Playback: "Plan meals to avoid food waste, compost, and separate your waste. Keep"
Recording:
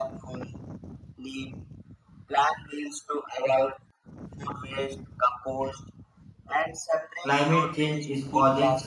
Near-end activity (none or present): present